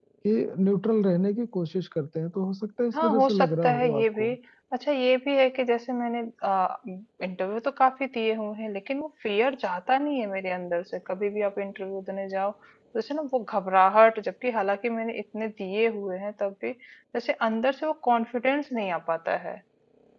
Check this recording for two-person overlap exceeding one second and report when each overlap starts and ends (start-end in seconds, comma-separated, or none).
2.9-4.3